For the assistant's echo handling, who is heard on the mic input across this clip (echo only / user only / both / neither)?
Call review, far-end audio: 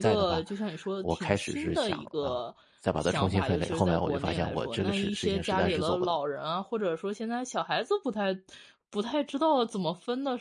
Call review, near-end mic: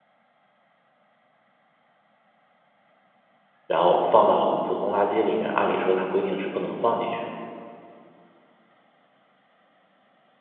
user only